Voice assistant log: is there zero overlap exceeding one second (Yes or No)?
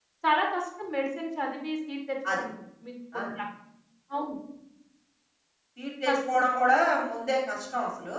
Yes